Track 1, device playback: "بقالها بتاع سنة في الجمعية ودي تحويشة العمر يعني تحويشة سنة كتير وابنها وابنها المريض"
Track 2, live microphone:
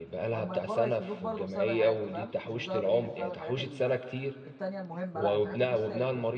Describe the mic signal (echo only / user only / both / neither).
both